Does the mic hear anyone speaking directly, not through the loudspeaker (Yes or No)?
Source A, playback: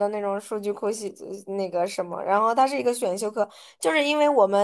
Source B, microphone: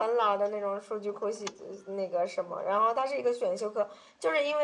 No